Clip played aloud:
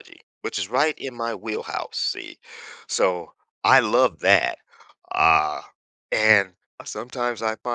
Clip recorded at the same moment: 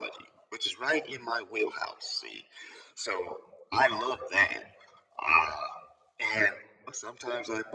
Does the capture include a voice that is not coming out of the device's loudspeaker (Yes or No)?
No